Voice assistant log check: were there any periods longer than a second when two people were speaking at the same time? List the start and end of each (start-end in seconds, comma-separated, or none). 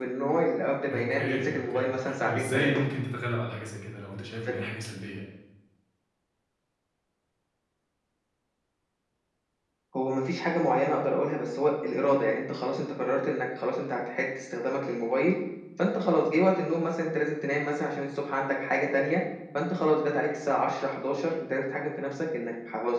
0.9-2.8